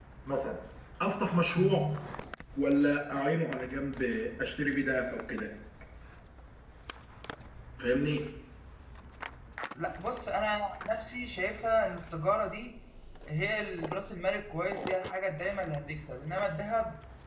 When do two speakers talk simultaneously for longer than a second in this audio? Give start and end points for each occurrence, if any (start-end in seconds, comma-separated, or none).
none